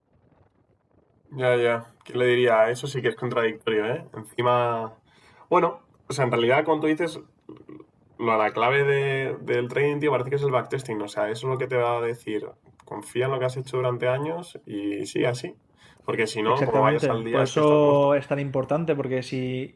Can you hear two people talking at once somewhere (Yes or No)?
Yes